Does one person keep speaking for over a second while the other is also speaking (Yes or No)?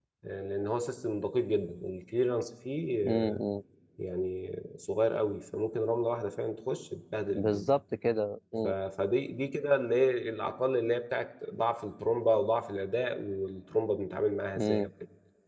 No